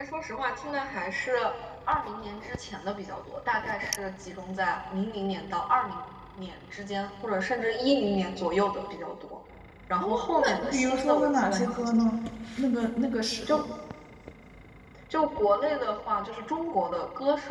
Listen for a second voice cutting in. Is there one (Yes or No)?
Yes